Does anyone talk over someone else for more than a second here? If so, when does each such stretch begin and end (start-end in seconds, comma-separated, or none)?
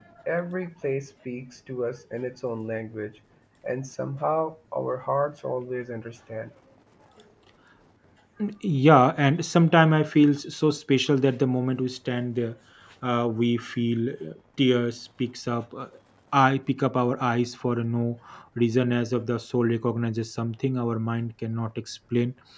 none